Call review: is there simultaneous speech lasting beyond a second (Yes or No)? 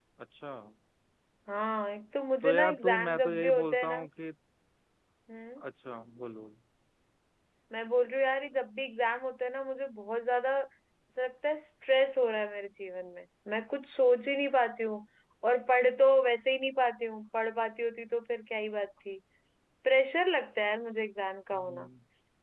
Yes